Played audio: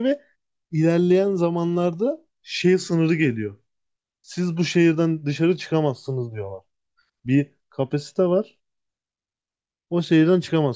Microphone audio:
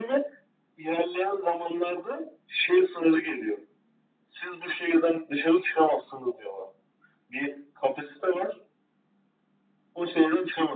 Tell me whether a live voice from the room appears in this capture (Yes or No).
No